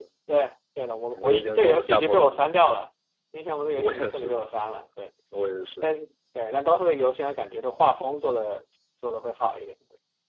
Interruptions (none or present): present